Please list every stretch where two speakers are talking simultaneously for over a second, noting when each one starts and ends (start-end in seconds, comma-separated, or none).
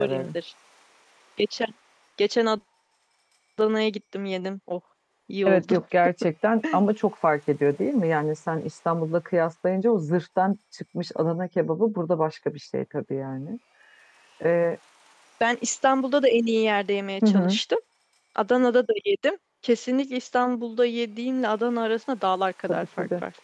none